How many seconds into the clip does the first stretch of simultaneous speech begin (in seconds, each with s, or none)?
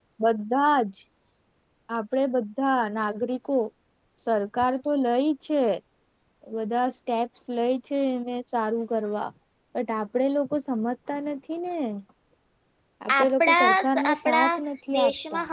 13.2 s